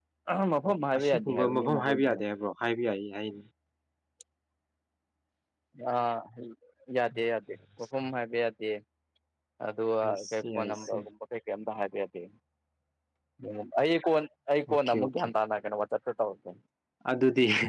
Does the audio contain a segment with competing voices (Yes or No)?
Yes